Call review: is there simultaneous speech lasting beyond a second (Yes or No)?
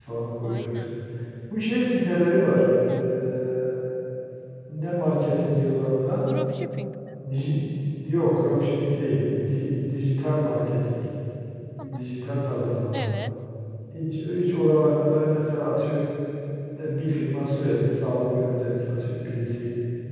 No